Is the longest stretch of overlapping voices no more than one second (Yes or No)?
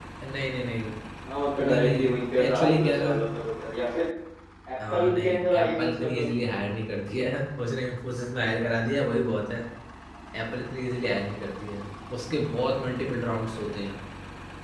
No